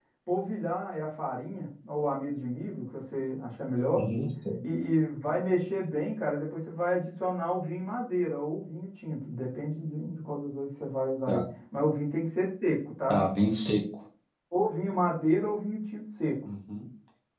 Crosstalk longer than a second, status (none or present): none